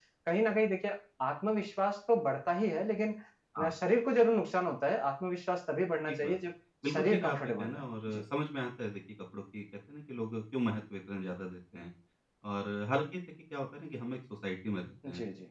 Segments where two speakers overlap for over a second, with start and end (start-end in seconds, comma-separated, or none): 6.9-8.2